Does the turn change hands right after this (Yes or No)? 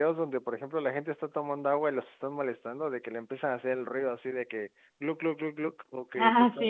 No